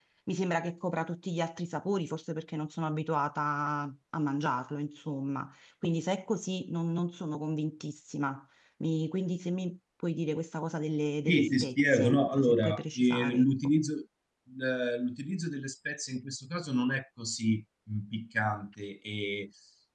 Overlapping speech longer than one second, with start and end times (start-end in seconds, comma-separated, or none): 11.3-13.5